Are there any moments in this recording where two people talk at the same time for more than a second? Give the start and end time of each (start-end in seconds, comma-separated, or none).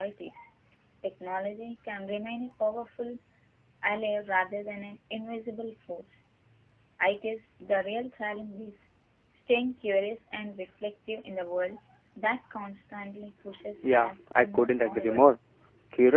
13.8-15.2